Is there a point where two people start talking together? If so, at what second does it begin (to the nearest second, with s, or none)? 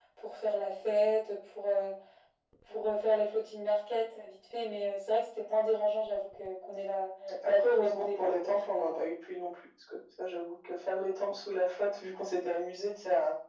7 s